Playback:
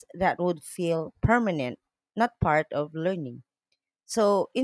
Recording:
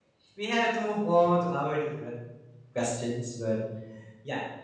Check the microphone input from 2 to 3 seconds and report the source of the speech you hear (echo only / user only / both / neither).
user only